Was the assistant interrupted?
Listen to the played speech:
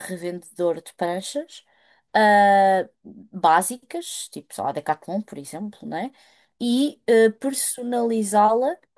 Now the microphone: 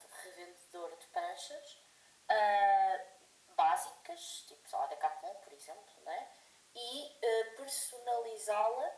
No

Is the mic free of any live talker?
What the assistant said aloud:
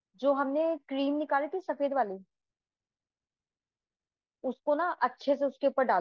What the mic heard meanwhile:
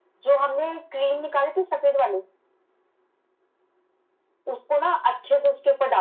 Yes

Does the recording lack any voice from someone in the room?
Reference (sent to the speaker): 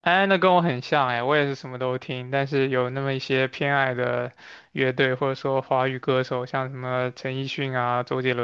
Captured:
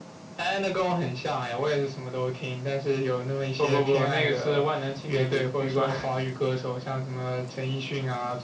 No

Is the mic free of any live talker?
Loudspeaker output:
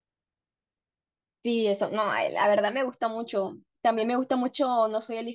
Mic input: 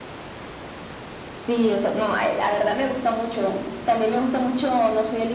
Yes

